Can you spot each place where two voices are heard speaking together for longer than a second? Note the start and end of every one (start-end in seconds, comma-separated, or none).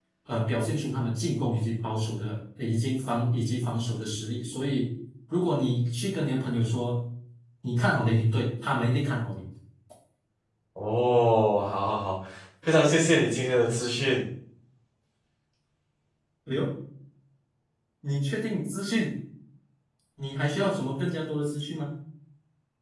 none